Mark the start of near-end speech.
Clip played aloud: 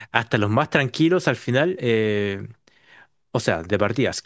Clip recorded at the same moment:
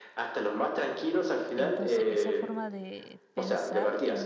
1.6 s

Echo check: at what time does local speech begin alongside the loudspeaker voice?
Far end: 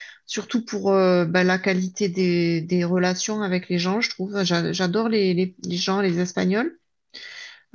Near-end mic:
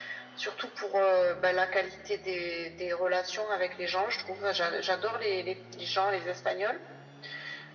none

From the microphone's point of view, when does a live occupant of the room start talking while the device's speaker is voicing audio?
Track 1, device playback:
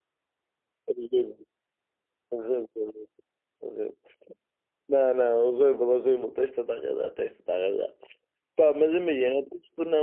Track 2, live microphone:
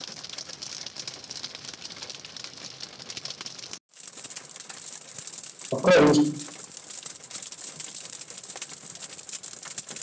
5.7 s

